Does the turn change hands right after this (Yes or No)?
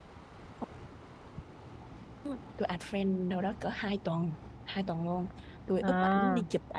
No